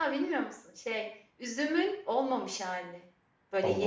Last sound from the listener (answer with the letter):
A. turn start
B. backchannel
B